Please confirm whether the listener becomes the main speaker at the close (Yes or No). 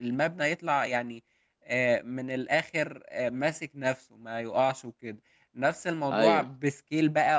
No